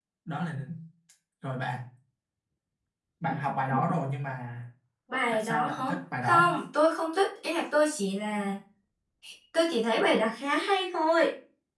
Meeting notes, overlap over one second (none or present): present